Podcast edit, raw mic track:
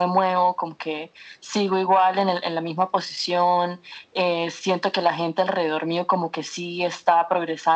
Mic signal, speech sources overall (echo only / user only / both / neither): echo only